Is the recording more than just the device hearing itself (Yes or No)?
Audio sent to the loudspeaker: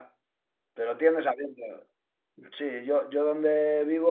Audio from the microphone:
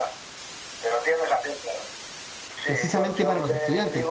Yes